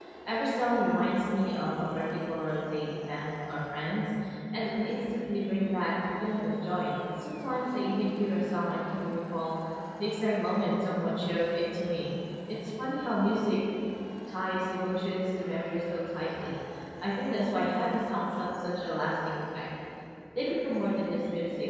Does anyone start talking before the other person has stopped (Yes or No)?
No